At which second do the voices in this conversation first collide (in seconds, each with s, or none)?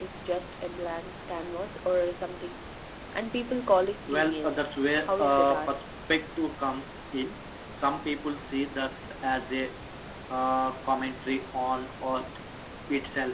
4.1 s